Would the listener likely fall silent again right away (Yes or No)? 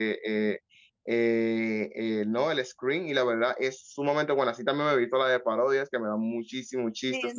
No